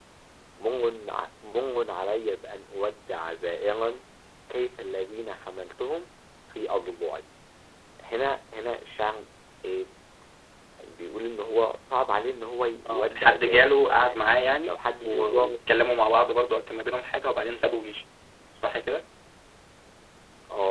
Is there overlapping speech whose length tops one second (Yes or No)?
Yes